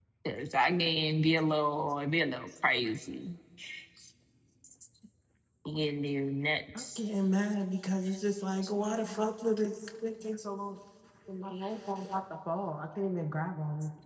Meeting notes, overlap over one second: none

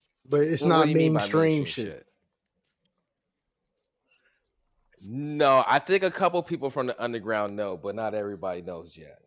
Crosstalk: present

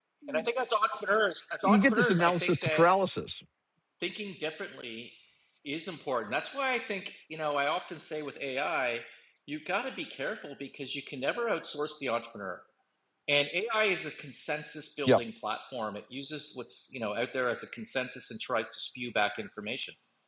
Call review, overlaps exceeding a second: present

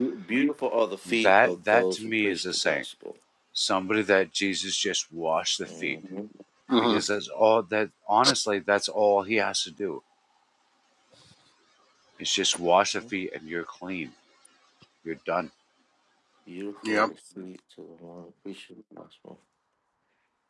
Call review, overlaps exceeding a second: present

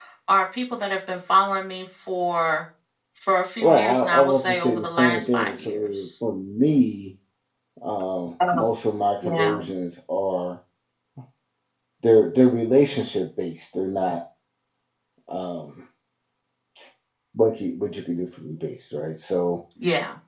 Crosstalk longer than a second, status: present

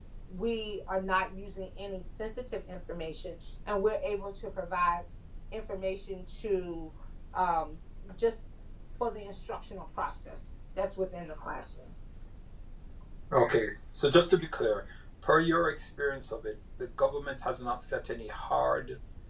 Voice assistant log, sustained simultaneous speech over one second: none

